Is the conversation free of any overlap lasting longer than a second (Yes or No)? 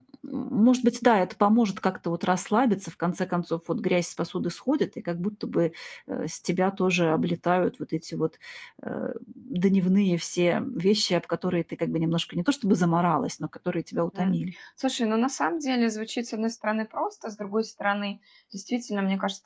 Yes